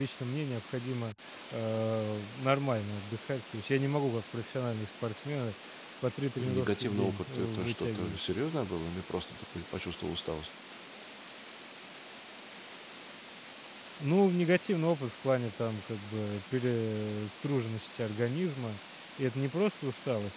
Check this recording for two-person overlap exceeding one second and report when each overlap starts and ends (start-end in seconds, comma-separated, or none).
6.4-8.2